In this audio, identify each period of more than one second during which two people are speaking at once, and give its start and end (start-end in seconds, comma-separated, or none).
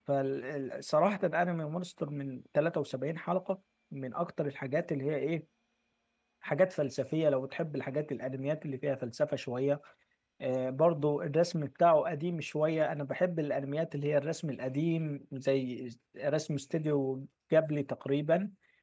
none